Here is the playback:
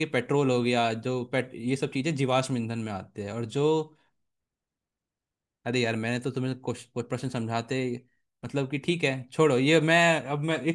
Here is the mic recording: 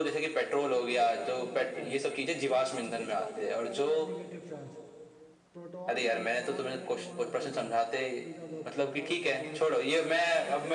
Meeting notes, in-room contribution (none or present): present